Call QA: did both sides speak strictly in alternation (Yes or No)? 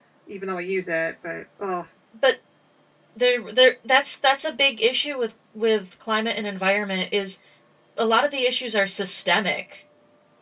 Yes